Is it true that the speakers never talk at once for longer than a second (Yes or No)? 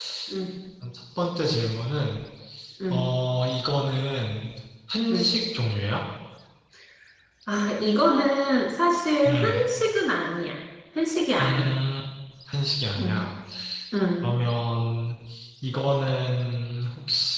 Yes